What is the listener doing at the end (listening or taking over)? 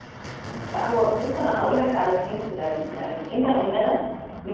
listening